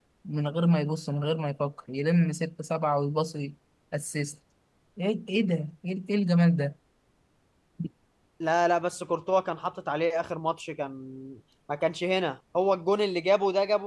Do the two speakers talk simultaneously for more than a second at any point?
No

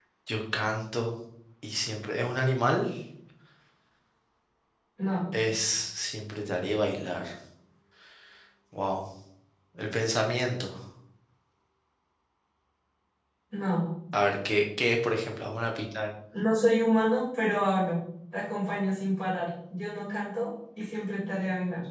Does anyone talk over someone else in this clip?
No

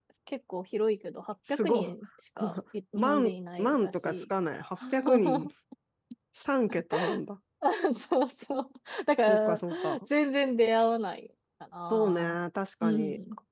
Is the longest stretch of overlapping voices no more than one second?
No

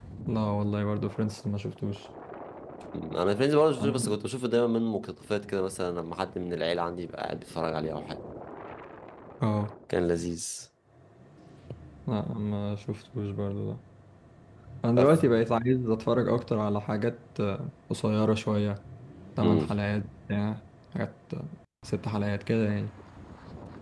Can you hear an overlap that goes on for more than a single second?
No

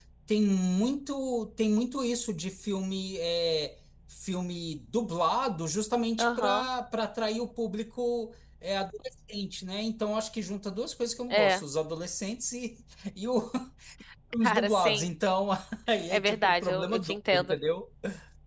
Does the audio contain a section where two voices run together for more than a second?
Yes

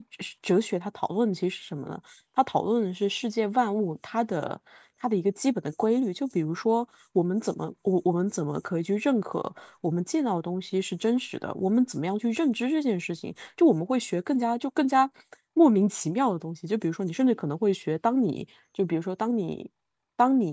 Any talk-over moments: No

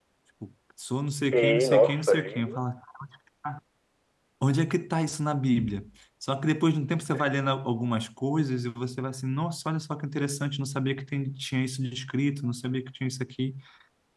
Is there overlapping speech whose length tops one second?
Yes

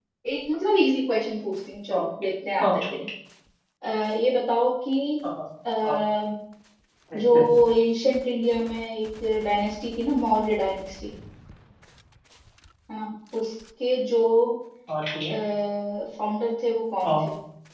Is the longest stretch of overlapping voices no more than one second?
Yes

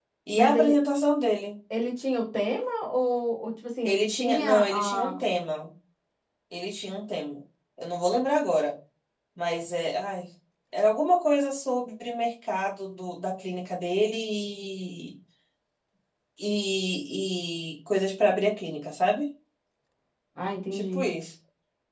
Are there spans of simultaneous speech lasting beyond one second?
Yes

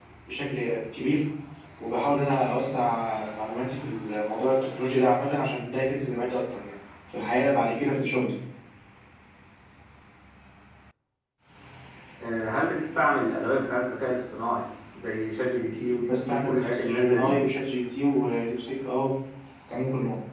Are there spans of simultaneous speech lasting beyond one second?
Yes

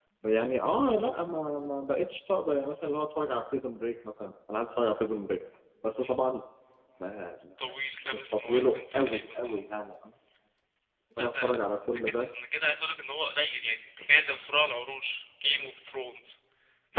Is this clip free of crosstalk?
No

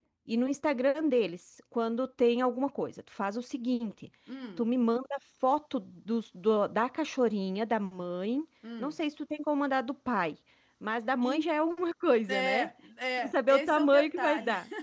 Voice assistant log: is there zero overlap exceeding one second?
No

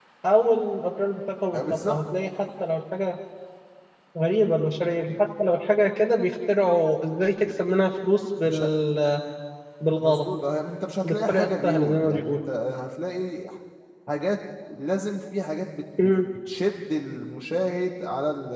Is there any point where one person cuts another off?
Yes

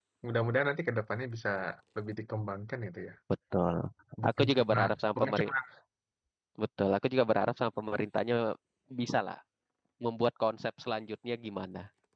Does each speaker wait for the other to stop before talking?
No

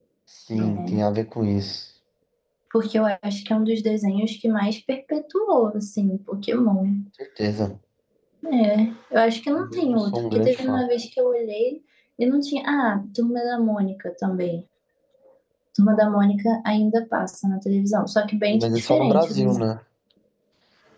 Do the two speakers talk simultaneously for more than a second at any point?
Yes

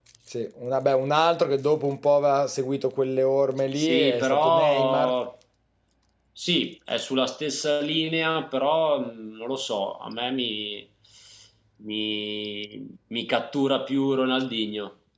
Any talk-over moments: Yes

